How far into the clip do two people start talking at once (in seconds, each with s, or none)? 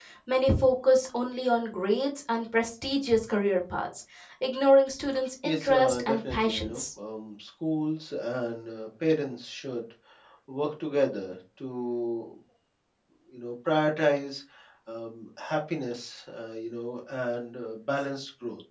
5.4 s